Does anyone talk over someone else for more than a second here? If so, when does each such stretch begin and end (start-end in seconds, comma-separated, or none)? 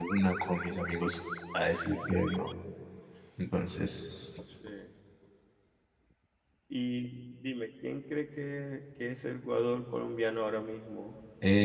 none